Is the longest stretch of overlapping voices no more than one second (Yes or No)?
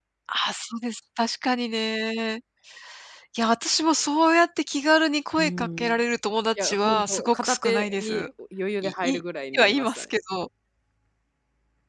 No